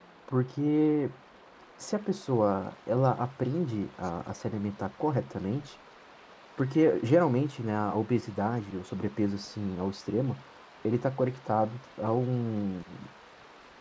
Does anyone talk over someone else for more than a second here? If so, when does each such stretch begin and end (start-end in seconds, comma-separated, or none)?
none